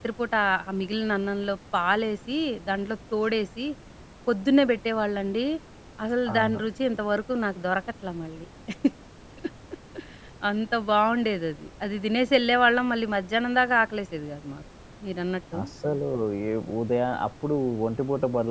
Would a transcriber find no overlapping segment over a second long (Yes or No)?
Yes